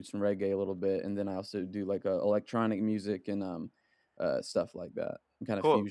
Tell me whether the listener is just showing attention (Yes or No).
No